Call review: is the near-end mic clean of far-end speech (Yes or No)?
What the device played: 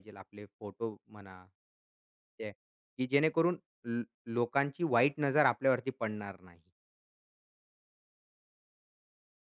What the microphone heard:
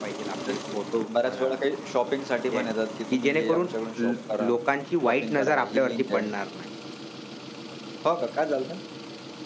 No